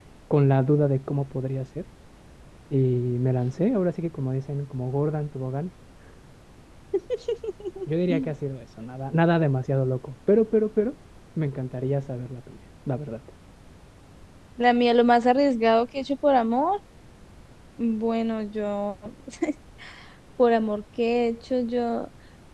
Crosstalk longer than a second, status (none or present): none